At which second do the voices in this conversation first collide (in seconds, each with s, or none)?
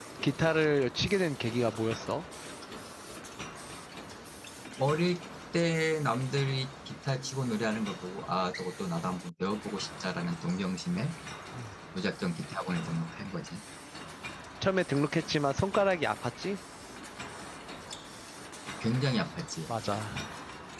none